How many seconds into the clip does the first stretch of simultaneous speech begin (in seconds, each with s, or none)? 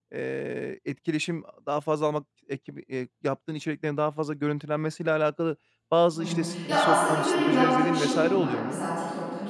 6.1 s